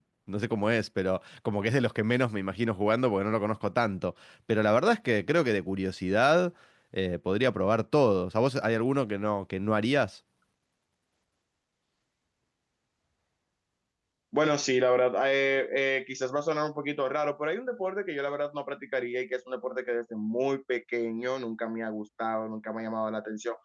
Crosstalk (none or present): none